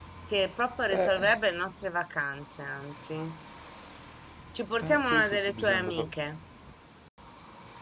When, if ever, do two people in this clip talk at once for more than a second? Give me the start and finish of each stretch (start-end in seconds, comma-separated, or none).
4.8-6.1